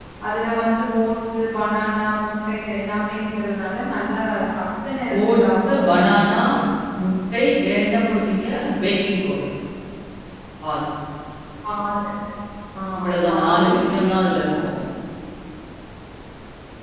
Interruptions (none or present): present